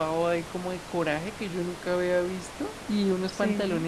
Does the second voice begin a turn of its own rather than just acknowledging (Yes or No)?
No